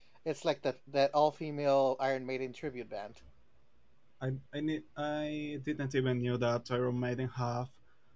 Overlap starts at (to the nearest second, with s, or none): none